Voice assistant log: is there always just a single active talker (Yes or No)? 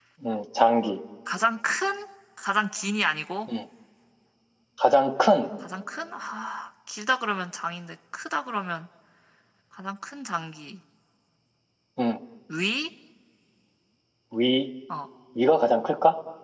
Yes